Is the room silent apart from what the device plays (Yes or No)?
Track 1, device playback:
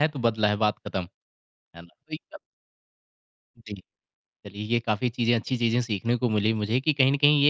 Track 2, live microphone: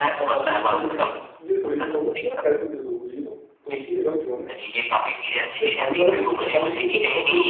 No